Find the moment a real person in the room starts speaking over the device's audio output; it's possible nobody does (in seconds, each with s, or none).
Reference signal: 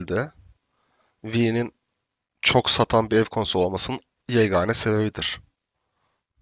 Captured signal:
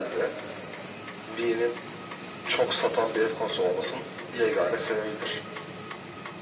none